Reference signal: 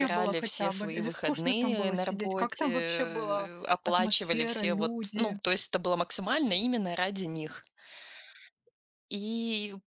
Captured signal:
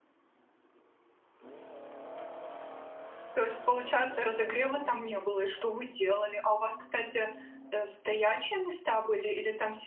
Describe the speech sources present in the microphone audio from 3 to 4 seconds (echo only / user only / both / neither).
user only